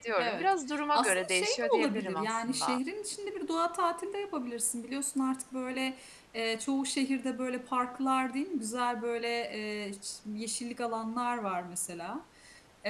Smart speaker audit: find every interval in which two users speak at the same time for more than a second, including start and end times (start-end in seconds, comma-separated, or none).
0.9-2.8